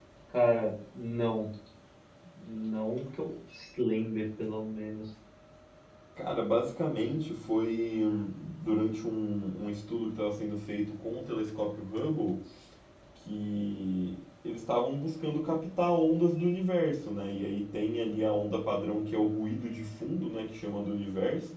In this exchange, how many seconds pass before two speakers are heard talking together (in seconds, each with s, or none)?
none